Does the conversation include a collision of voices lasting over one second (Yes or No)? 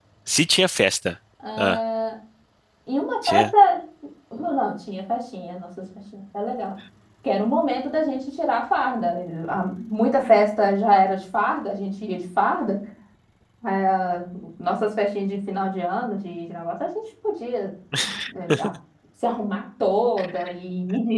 No